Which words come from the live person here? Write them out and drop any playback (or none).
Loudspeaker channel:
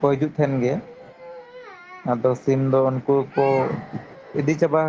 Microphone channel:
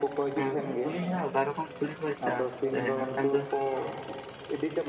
ᱮᱜ ᱛᱩᱲᱤ ᱦᱟᱸᱜ ᱵᱟᱨ ᱨᱚᱠᱚᱢ ᱛᱩᱲᱤ ᱠᱚ ᱪᱟᱥ ᱛᱟᱦᱮᱸᱜᱟ, ᱢᱤᱫ ᱴᱟᱝ ᱫᱚ